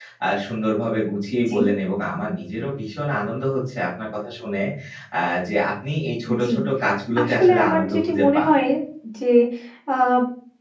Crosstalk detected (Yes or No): Yes